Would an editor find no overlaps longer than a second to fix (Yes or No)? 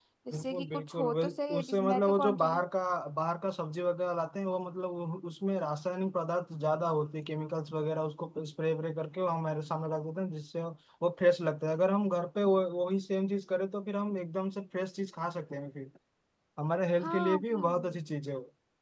No